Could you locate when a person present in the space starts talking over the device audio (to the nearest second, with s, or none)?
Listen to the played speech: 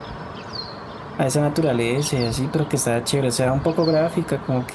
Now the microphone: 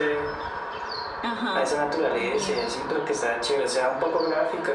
1 s